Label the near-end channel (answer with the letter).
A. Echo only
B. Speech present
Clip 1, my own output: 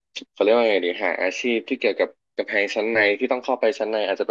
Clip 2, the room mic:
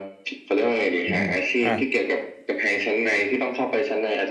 B